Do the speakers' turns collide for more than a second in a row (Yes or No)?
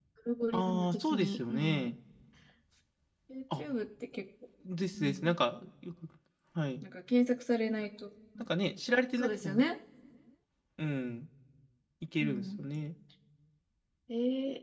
Yes